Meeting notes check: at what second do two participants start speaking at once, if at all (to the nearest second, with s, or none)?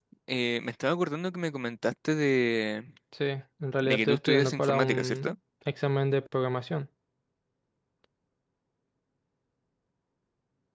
4 s